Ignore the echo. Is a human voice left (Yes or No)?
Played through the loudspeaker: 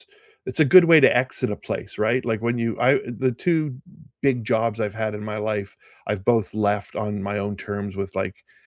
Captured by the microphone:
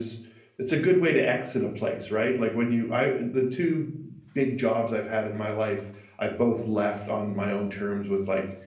No